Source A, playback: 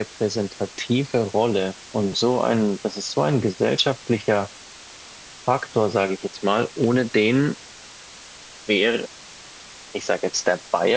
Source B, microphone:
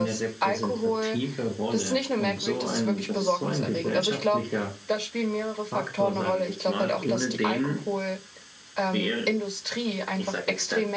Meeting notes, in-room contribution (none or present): present